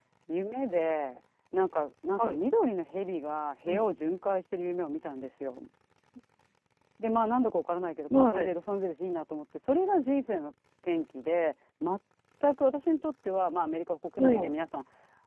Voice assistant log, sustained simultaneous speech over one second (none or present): none